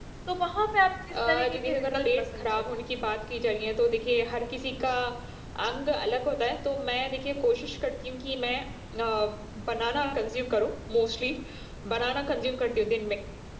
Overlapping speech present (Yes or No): Yes